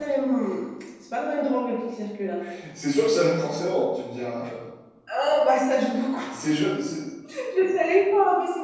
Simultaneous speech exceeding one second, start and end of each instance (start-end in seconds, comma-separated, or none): none